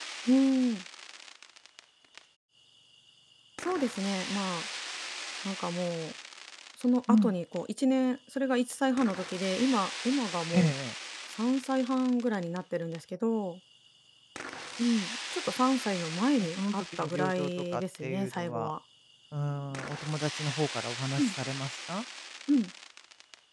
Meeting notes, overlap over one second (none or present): present